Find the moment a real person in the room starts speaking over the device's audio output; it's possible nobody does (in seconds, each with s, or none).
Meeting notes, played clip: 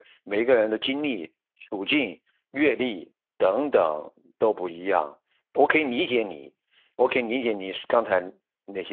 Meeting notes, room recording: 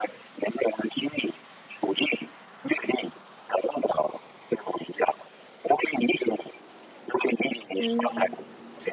7.8 s